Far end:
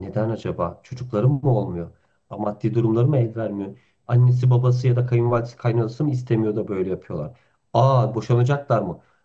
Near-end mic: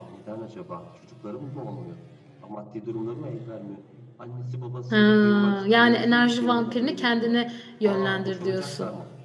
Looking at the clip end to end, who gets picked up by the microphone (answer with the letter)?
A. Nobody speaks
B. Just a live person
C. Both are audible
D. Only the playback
C